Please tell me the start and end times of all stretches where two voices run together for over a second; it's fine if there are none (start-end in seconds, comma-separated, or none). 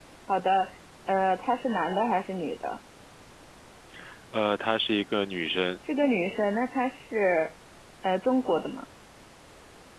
none